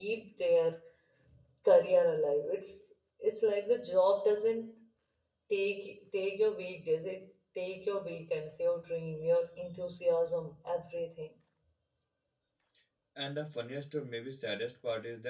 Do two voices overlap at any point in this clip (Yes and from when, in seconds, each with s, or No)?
No